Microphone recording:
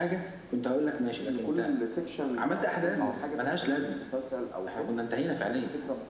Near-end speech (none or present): present